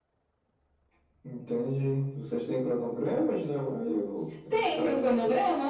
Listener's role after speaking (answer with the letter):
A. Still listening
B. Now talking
B